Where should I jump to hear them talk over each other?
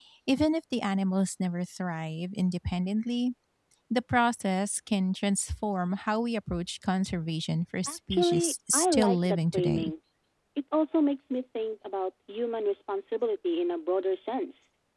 7.9 s

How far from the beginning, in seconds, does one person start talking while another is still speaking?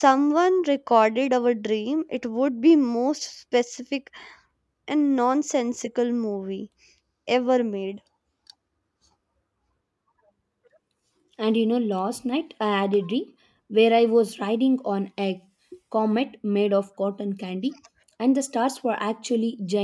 none

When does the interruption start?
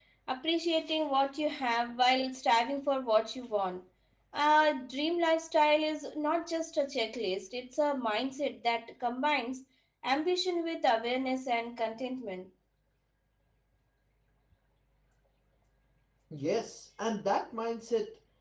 none

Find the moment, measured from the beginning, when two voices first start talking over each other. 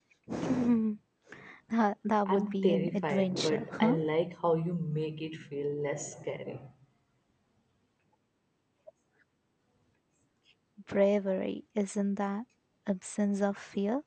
2.3 s

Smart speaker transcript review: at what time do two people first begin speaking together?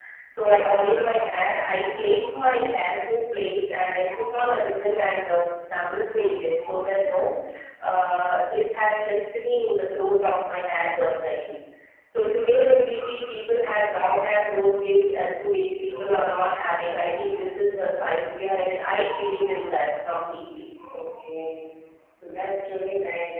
none

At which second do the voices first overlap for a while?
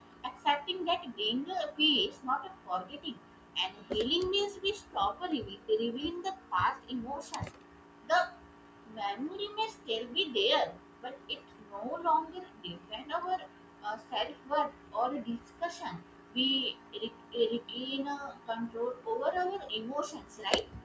none

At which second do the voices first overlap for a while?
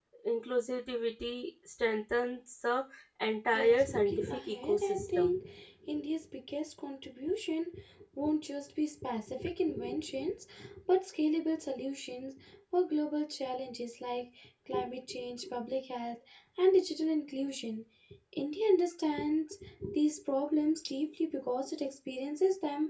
3.5 s

